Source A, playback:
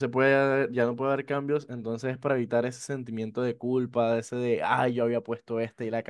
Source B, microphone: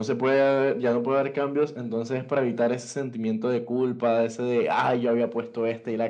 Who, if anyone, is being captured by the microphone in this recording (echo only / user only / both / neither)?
echo only